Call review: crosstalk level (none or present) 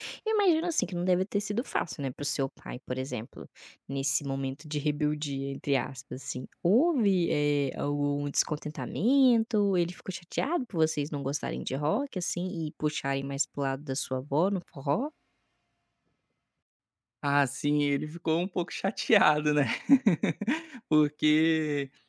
none